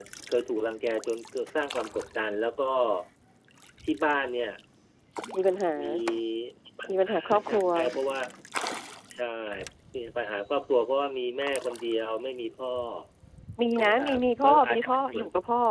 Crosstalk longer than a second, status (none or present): present